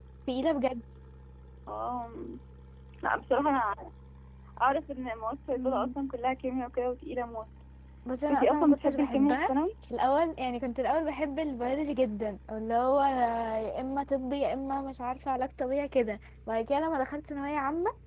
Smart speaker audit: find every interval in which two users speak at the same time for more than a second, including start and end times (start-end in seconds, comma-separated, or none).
8.3-9.5